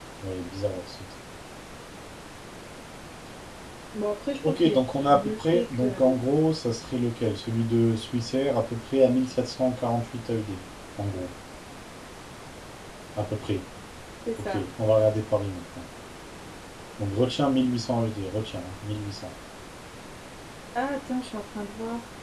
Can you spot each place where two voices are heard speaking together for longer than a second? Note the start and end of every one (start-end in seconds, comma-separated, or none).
4.4-6.0